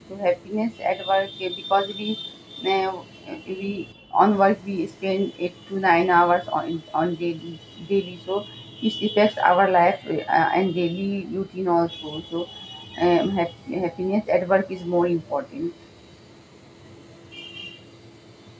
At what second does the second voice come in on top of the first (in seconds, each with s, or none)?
none